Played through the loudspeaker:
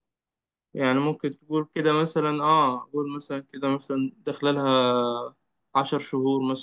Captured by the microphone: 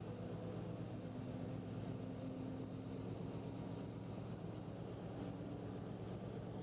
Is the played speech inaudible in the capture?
Yes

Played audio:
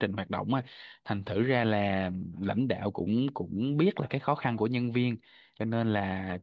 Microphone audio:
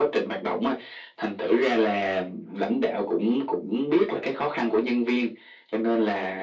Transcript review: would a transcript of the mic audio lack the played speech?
No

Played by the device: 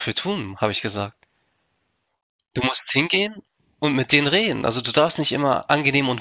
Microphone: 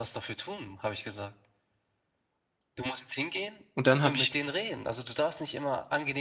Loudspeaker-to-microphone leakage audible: Yes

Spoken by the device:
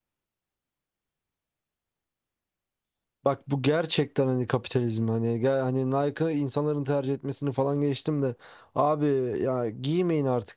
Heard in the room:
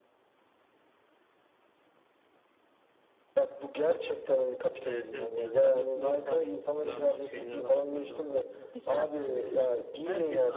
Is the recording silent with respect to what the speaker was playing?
No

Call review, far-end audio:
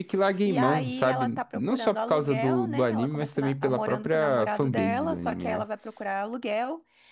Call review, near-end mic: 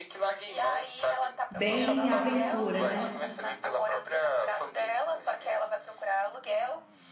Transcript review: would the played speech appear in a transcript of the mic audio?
Yes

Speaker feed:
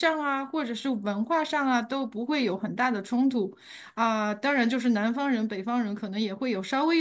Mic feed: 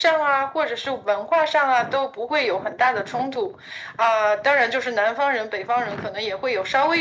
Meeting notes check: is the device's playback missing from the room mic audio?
No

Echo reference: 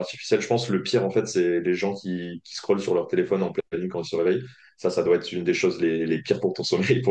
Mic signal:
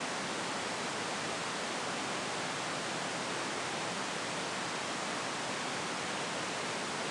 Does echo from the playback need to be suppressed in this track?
No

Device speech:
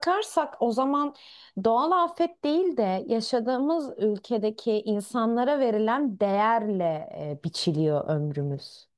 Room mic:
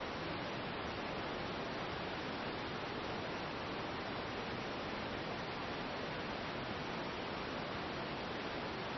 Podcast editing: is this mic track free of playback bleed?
Yes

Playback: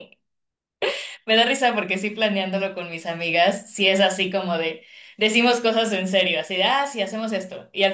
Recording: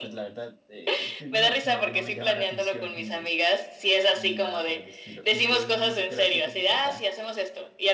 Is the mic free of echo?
No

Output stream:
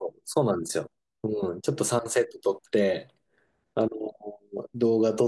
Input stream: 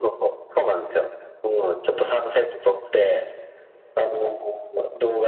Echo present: Yes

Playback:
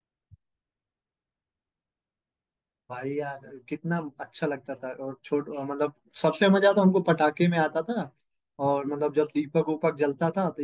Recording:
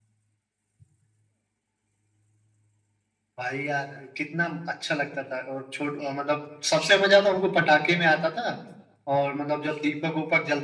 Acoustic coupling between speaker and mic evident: Yes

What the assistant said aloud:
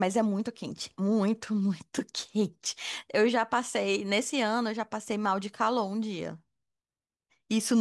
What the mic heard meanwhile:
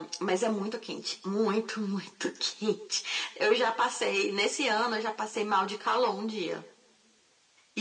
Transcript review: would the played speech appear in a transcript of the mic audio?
Yes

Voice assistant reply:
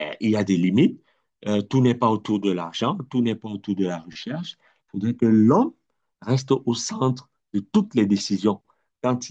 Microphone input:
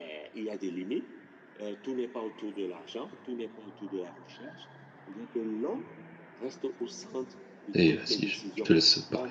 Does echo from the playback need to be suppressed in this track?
Yes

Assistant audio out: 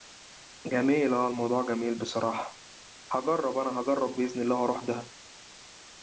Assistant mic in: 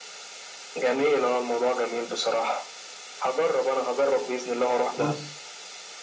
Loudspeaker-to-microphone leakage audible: Yes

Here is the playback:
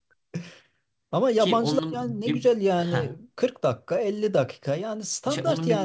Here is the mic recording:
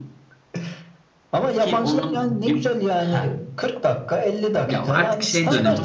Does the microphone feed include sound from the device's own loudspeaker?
Yes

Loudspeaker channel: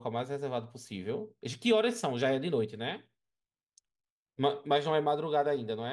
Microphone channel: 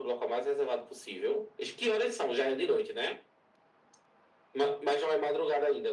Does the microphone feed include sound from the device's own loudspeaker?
Yes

